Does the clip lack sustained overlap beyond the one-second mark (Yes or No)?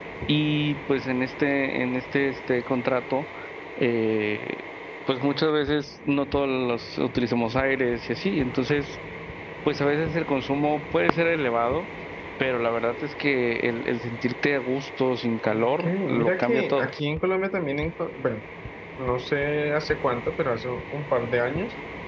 No